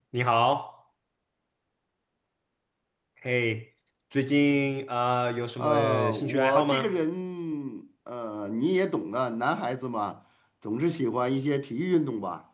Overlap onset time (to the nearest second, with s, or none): 6 s